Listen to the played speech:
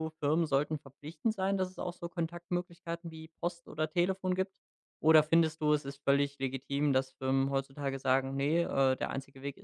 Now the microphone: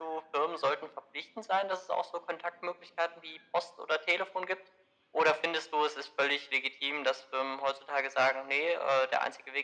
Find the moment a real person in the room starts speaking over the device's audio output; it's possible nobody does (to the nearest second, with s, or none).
none